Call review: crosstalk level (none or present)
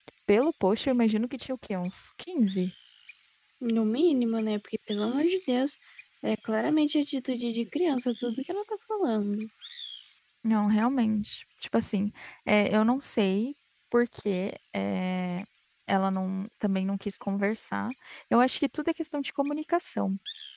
none